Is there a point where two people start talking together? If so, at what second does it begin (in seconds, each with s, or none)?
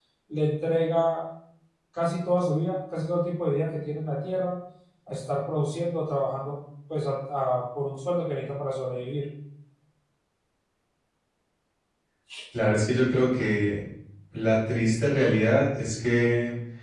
none